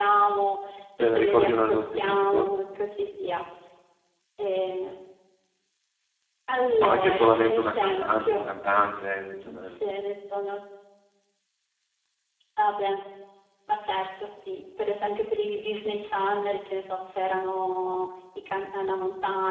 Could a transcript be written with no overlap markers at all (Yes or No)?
No